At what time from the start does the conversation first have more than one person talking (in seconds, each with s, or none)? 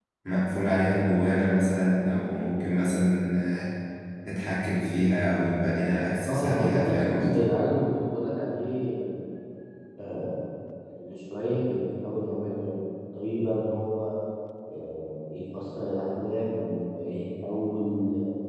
6.2 s